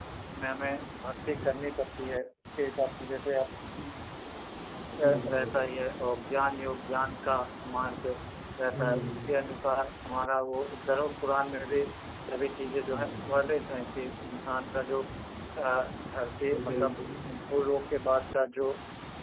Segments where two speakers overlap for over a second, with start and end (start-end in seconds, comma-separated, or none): none